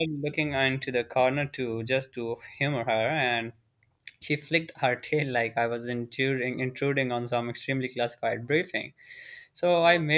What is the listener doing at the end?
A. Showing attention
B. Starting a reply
A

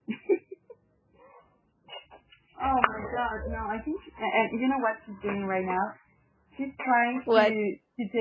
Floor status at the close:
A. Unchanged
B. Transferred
A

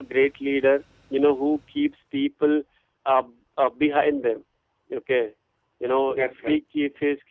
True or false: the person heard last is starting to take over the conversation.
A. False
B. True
A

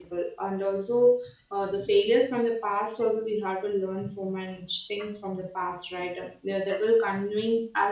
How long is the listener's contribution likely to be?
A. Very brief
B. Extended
A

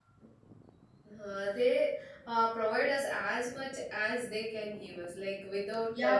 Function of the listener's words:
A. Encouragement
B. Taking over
B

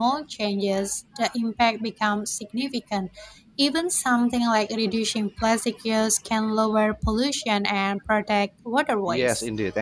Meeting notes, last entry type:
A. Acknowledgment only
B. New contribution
B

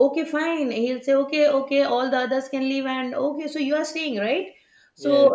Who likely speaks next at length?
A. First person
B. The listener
A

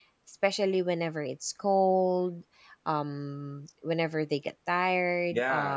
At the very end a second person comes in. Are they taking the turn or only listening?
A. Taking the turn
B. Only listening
A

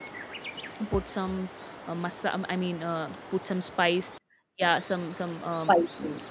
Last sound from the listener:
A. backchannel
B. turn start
A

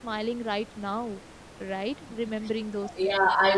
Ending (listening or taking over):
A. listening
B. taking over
B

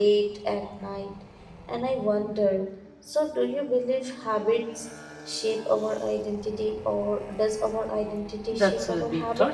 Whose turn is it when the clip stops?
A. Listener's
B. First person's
A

